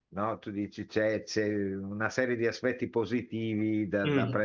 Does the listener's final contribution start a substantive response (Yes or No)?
No